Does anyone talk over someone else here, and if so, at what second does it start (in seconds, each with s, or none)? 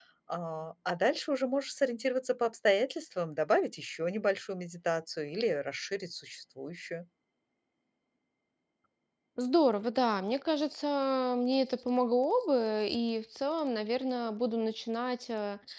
none